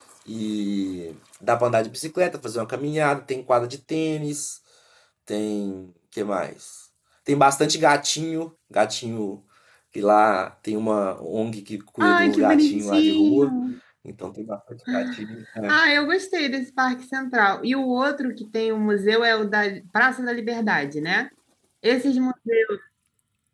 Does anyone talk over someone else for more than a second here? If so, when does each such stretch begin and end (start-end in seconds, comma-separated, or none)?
12.0-13.5